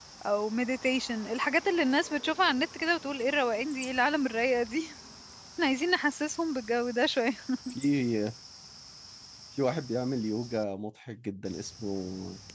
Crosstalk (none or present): none